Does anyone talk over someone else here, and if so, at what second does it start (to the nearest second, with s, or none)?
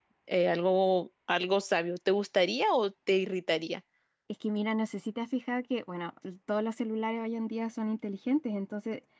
none